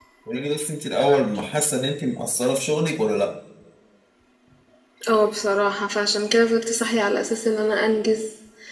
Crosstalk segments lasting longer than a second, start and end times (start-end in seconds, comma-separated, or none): none